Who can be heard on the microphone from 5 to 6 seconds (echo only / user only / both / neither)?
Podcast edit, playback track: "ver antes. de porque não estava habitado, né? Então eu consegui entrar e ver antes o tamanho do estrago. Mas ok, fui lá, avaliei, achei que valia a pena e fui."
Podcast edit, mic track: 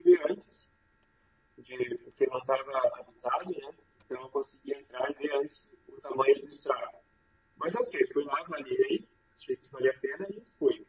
echo only